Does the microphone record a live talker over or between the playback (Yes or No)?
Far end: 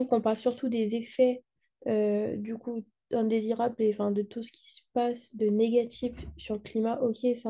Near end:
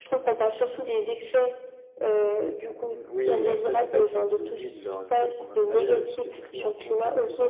Yes